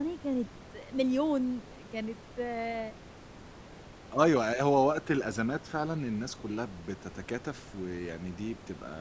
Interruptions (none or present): none